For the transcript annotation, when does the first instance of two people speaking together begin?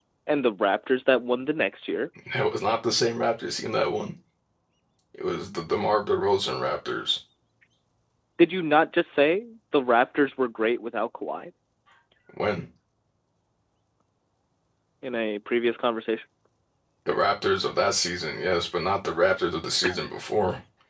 none

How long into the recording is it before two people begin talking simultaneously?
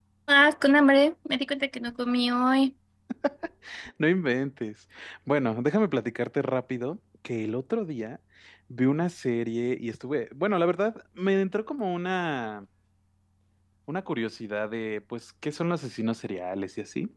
none

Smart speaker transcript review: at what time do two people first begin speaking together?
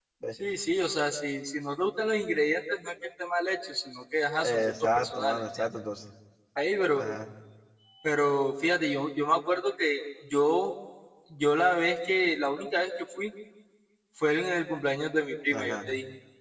4.4 s

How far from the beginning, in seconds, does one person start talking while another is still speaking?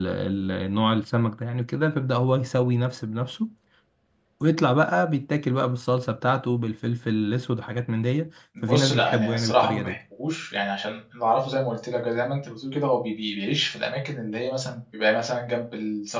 8.6 s

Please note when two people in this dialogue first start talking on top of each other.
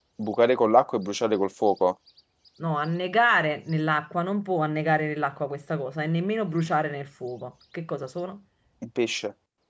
none

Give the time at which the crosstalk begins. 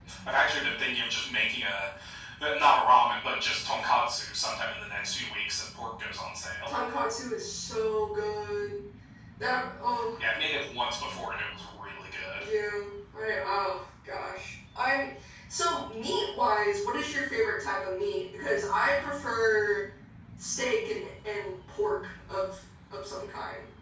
none

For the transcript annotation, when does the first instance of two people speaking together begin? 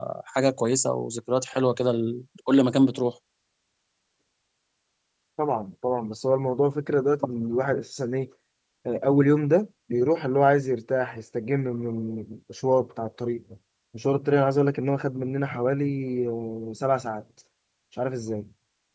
none

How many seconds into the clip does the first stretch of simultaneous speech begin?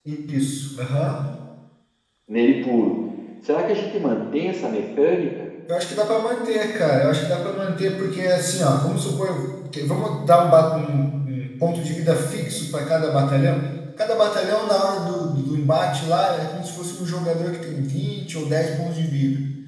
none

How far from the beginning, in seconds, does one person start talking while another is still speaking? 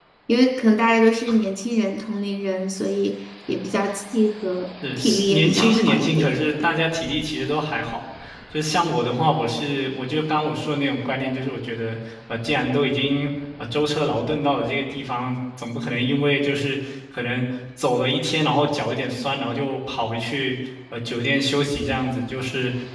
4.8 s

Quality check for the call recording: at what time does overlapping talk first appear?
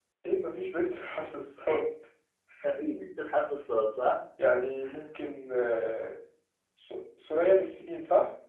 none

